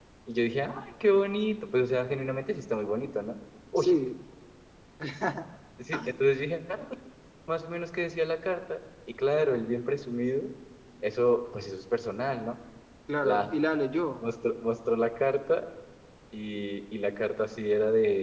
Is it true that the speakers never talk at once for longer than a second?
Yes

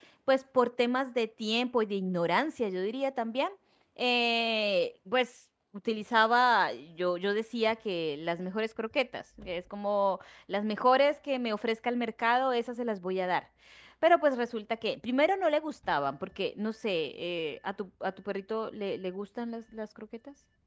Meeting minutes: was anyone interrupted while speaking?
No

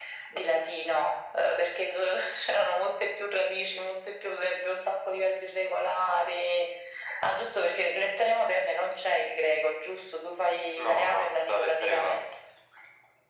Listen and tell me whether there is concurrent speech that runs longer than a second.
Yes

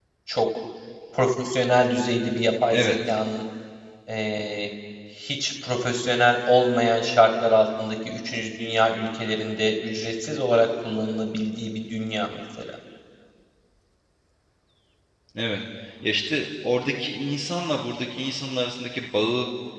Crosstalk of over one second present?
No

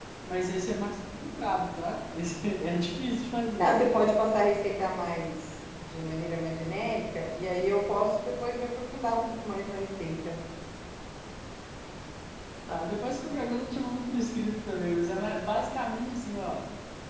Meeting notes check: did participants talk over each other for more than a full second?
No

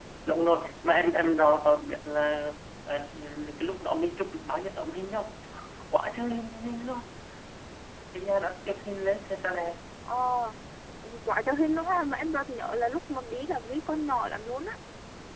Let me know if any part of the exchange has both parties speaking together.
No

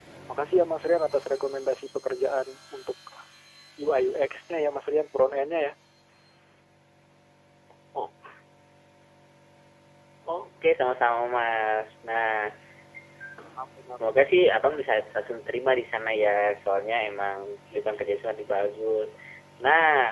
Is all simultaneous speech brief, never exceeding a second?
Yes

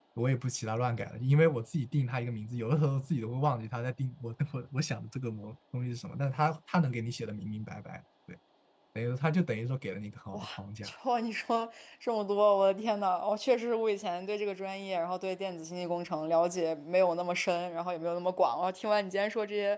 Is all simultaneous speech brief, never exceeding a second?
Yes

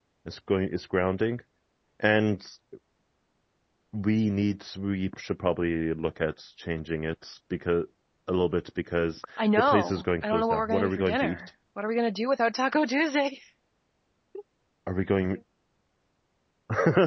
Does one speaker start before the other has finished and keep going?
Yes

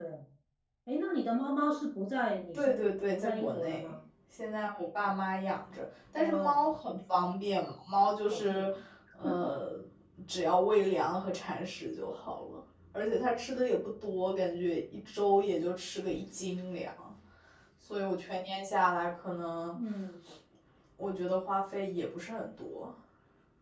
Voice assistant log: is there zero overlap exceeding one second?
No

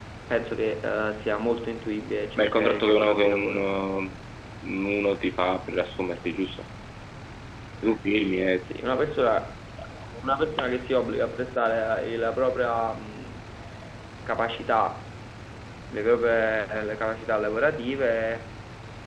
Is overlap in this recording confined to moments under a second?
No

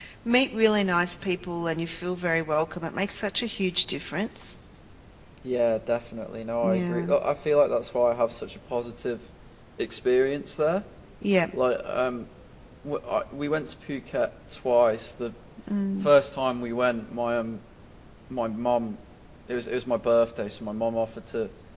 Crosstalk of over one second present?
No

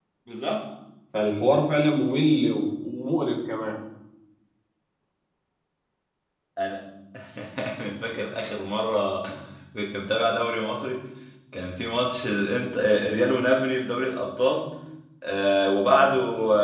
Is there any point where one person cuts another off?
No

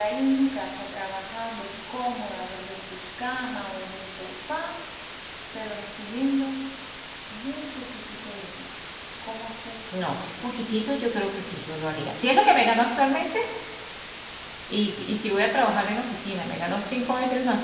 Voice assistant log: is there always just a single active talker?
Yes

